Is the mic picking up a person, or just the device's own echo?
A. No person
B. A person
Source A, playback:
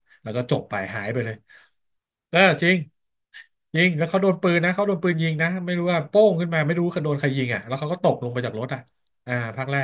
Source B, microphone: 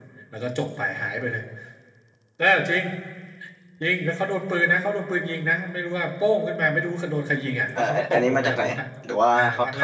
B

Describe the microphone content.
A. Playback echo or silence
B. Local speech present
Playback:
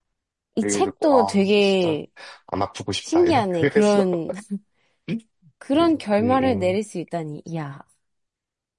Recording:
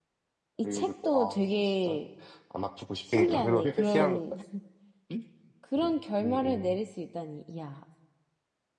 B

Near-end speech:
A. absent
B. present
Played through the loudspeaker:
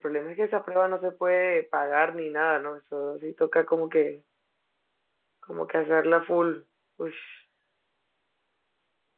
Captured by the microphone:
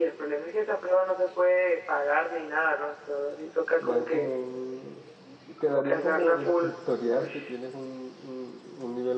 B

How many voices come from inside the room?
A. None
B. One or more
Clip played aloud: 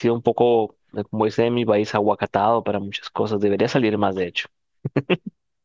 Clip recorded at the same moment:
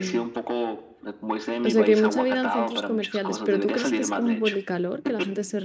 B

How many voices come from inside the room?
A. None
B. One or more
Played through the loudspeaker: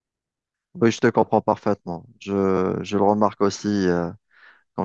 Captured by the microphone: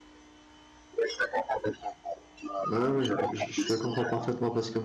B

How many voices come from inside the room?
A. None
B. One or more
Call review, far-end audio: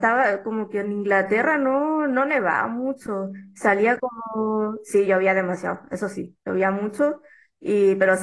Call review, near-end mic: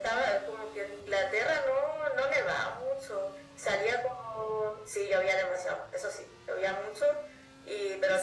A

